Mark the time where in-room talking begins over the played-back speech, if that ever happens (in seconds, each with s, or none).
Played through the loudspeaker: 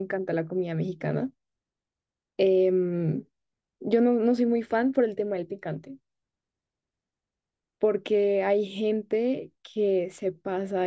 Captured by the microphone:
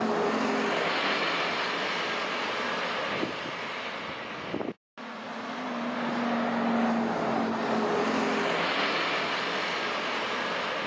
none